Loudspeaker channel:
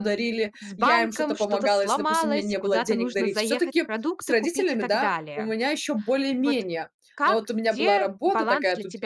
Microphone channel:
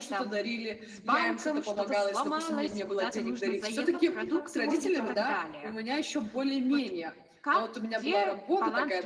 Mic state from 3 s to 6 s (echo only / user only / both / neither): both